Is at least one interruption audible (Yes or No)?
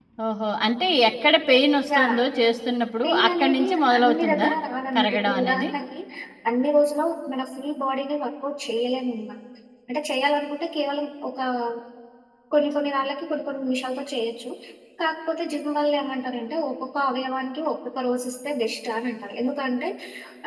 Yes